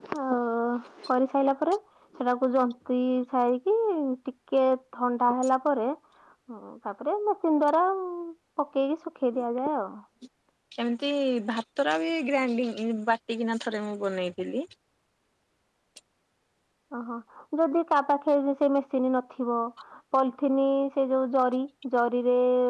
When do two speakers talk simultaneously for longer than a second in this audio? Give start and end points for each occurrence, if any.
none

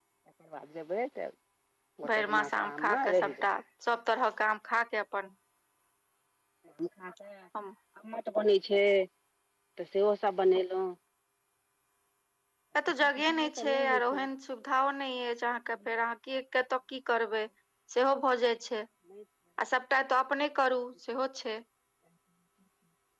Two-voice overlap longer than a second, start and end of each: 2.1-3.6, 13.0-14.3

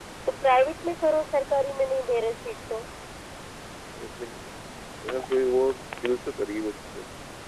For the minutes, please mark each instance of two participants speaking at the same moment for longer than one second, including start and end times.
none

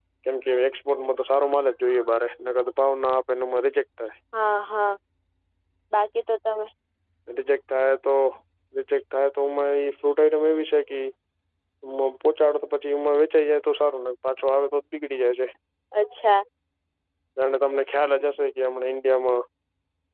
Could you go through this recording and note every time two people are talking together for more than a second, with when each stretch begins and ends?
none

